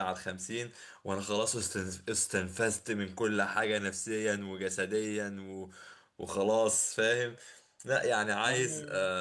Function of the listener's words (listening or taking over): listening